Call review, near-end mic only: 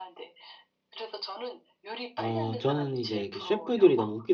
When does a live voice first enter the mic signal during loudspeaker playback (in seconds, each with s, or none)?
2.2 s